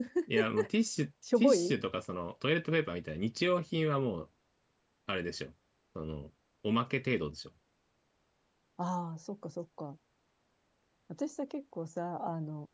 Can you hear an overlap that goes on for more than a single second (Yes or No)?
No